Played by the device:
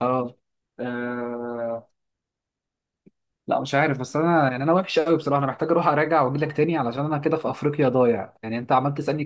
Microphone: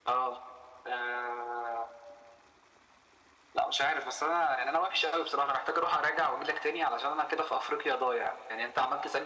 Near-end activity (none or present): none